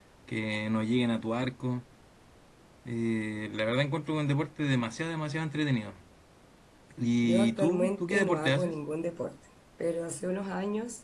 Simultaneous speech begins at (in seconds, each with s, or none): 7.2 s